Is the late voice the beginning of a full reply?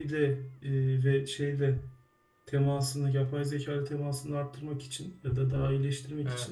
No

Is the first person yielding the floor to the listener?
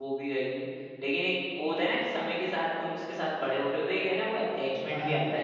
Yes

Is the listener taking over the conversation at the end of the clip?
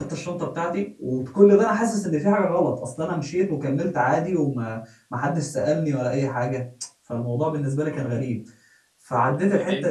No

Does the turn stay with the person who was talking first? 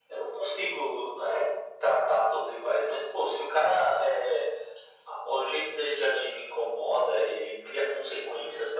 Yes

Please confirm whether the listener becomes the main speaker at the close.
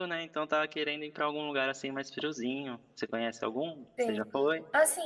Yes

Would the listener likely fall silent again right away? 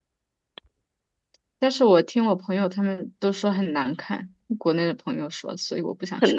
No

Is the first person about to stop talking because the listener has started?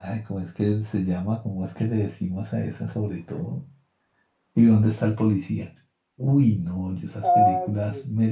No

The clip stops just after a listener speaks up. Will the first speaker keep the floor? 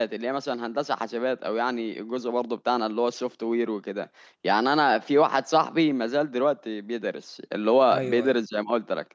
Yes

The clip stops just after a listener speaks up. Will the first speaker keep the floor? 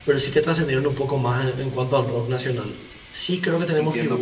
No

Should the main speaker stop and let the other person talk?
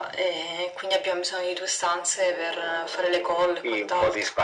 Yes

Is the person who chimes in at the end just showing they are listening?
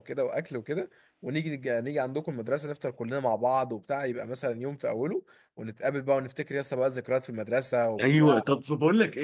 No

